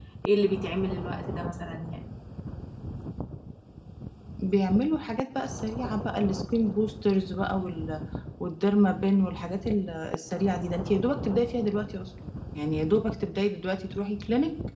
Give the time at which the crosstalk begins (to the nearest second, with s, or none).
none